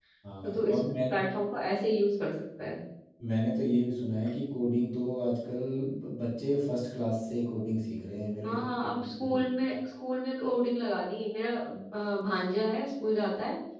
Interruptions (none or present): present